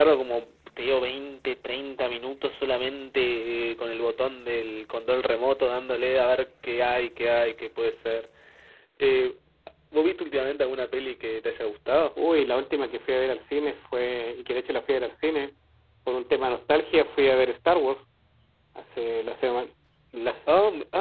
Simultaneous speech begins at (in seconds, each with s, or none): none